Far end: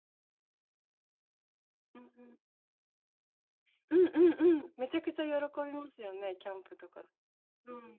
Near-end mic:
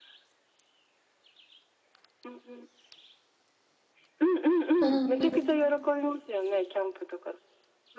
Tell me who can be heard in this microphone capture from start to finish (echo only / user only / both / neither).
both